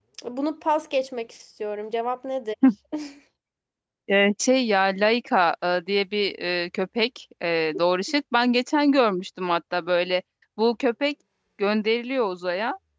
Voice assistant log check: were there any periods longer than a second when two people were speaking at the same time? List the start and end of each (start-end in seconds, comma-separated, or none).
none